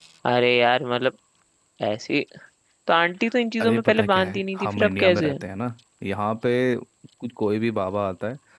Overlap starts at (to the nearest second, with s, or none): 4 s